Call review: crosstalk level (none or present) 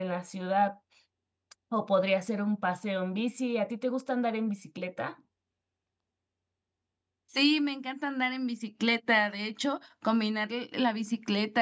none